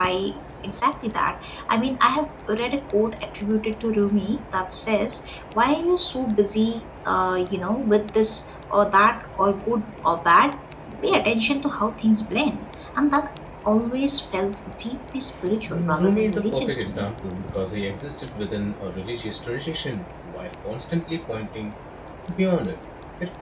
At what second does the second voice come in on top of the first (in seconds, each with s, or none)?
15.7 s